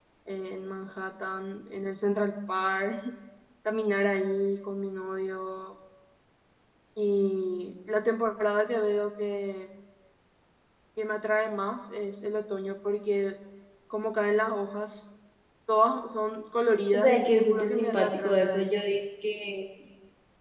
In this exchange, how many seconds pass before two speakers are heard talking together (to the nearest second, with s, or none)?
17 s